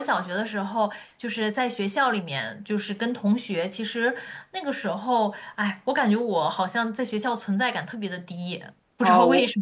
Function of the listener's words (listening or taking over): taking over